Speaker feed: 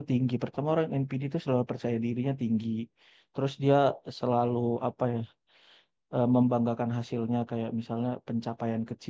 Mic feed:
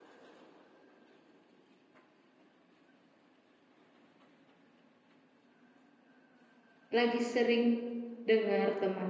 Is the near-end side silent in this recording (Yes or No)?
No